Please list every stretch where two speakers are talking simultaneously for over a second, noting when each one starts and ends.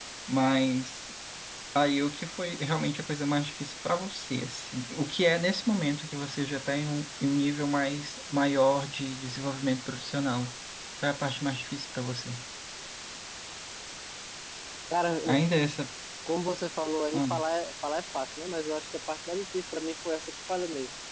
none

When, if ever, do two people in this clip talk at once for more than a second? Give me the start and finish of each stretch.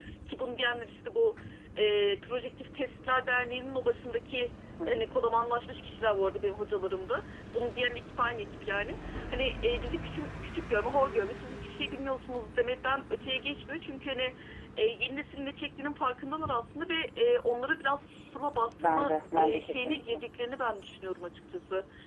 18.9-20.2

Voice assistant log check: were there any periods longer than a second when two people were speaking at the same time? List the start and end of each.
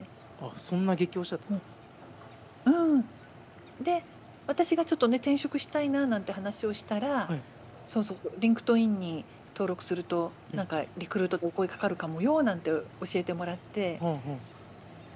none

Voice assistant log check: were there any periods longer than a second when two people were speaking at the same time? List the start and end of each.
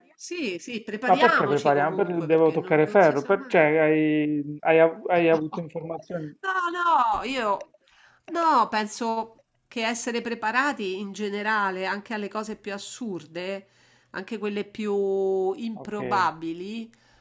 1.1-3.7

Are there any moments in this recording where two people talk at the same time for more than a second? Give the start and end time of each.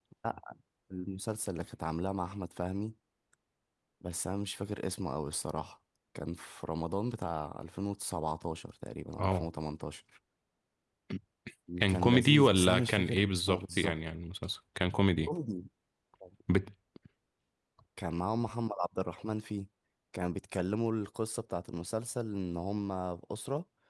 11.9-13.9

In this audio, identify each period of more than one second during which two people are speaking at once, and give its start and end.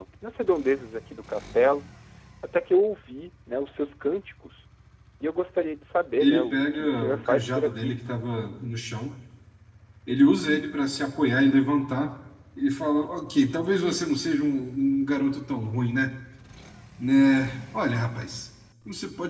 6.2-8.0

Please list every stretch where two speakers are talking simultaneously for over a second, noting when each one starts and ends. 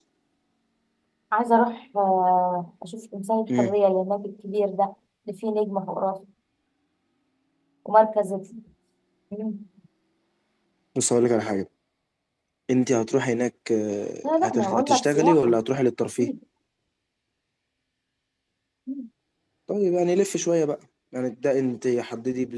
14.2-15.6

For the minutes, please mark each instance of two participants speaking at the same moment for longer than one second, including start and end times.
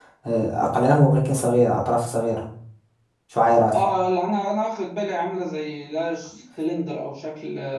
none

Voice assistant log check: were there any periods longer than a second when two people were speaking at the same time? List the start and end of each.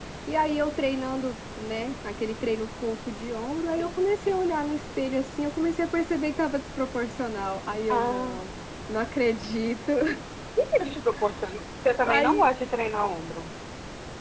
none

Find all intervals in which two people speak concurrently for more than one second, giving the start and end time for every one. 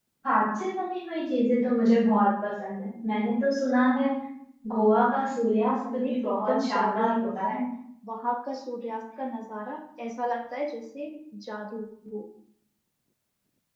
5.9-7.6

